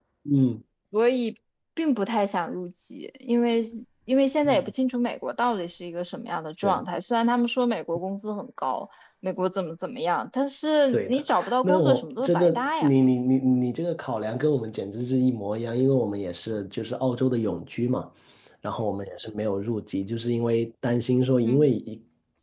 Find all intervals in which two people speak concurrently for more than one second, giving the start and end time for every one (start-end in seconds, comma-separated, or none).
10.9-12.9